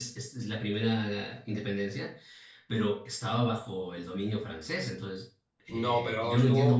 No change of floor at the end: No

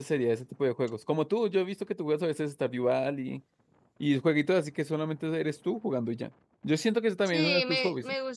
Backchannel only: No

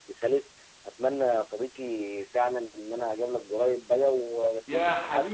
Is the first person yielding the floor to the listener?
Yes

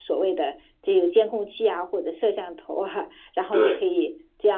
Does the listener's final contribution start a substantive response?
No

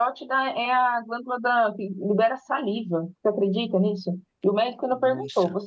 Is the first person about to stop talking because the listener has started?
No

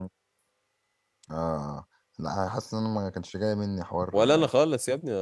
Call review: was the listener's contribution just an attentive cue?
No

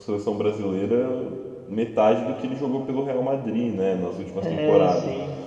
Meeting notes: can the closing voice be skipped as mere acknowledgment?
Yes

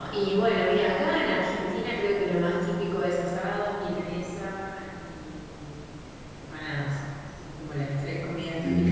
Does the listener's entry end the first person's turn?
No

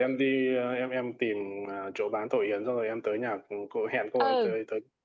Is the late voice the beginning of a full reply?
Yes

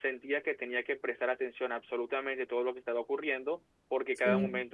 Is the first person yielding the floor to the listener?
No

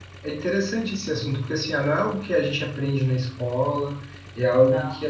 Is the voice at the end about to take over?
No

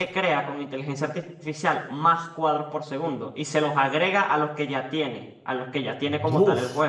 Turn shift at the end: No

